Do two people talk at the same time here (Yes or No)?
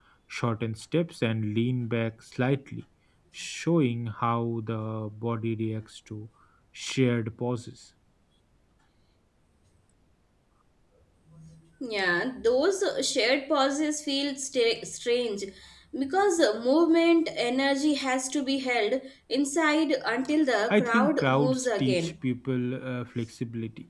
Yes